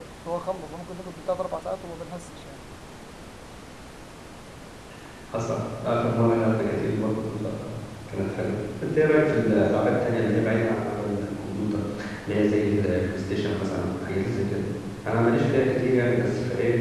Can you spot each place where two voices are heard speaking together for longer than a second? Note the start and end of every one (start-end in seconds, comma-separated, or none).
none